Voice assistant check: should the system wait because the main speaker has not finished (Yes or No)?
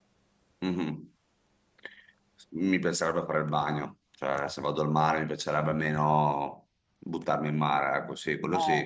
No